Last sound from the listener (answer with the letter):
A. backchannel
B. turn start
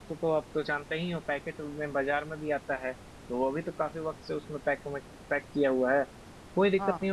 A